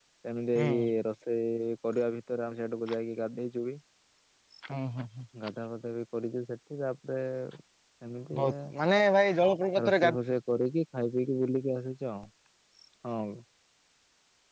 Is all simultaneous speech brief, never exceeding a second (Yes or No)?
Yes